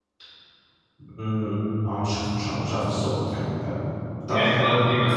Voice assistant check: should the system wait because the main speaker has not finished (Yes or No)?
No